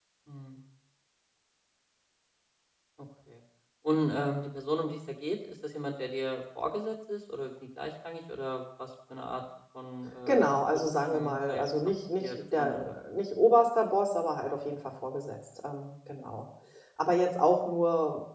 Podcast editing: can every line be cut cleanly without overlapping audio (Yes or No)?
No